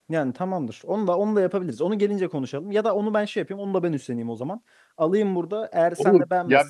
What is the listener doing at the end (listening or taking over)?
taking over